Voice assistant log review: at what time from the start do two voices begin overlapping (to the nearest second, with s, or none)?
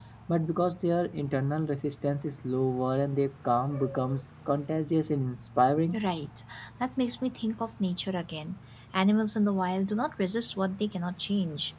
none